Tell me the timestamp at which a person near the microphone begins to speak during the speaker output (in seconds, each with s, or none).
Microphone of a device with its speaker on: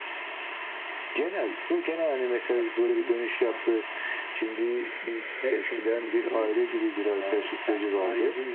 none